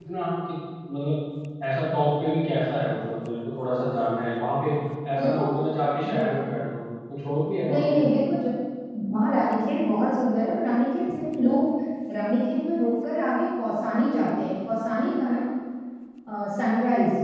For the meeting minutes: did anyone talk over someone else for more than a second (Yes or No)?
No